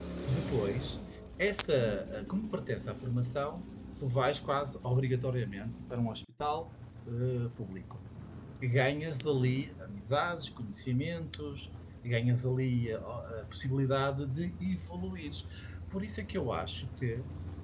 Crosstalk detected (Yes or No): No